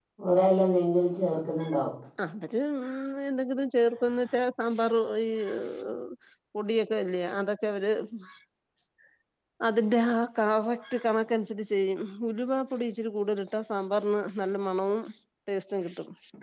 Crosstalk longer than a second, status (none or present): none